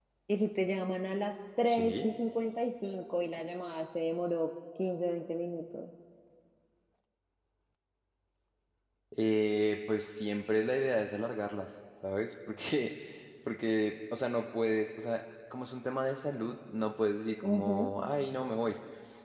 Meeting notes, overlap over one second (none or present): none